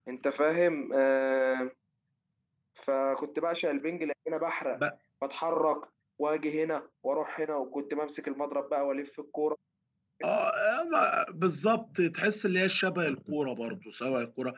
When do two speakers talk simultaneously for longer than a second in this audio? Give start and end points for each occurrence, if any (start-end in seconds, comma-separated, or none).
none